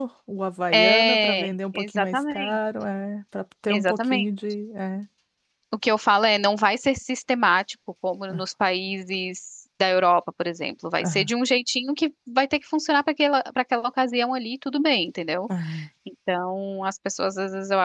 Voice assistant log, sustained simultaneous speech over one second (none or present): present